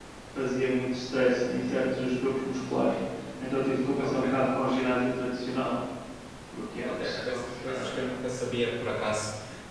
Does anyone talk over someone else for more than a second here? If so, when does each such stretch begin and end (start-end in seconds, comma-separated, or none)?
6.8-8.2